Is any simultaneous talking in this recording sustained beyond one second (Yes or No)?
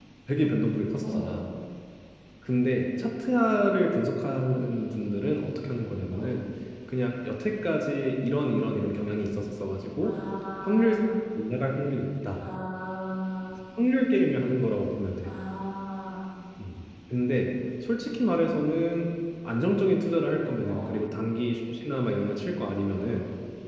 No